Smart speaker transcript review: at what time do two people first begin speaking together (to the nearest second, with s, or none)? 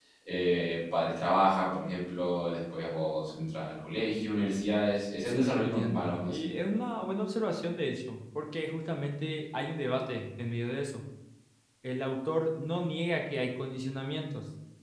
5 s